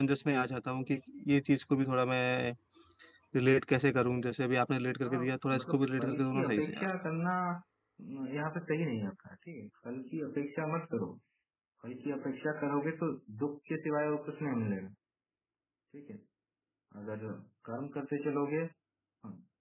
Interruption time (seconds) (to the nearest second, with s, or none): 5 s